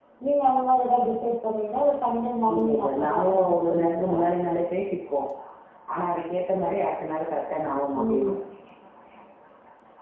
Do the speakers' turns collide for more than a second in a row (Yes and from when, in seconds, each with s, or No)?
Yes, from 2.5 s